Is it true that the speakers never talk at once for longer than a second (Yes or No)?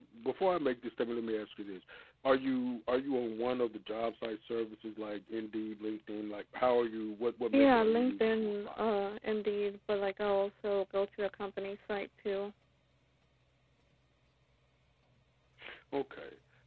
No